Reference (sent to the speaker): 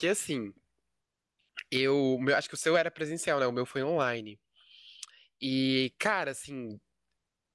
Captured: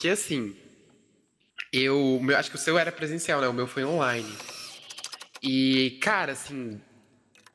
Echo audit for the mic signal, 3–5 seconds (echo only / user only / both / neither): echo only